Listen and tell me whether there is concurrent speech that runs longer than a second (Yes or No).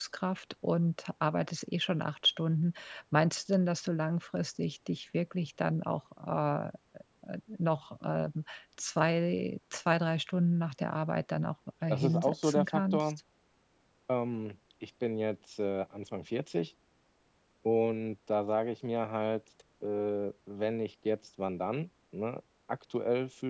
Yes